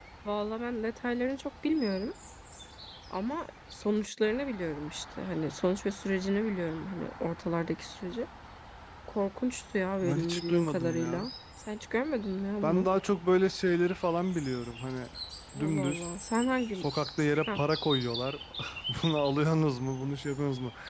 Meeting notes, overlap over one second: present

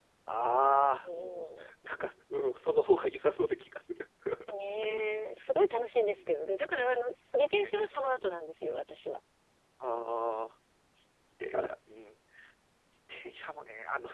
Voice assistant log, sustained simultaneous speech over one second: none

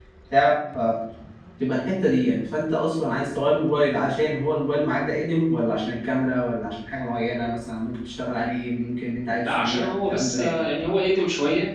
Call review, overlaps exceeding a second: present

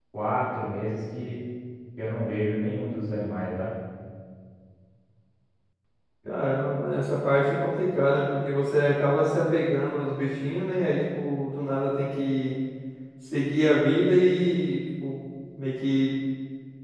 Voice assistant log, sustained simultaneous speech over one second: none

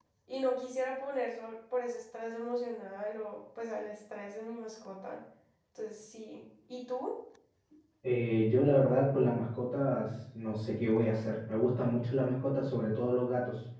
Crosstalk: none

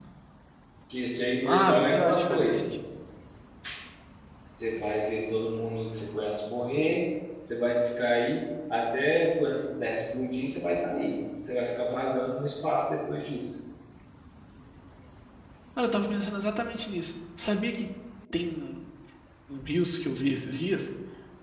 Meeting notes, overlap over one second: present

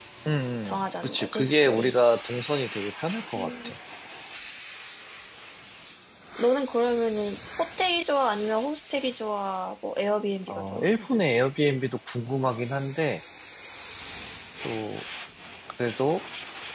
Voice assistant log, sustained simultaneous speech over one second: present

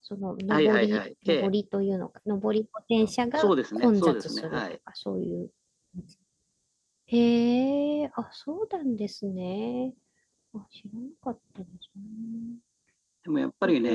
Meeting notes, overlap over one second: present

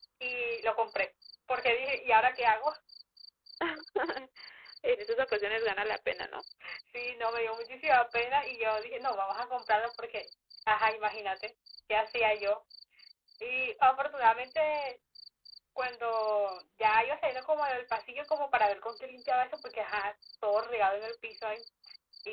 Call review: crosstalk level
none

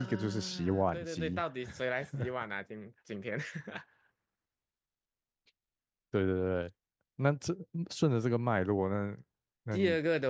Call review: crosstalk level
present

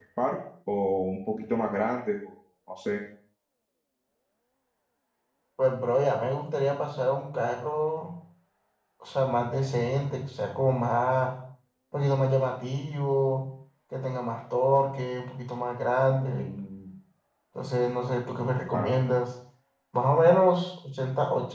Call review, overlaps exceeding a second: none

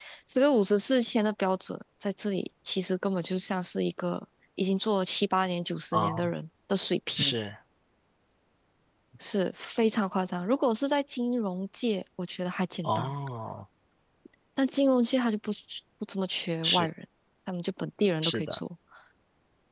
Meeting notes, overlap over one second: none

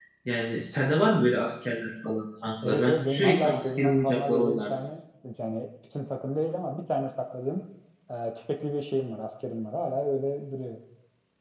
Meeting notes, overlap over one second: present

